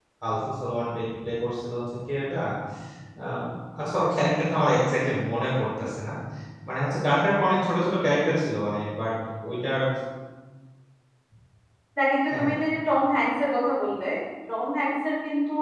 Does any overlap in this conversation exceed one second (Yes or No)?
No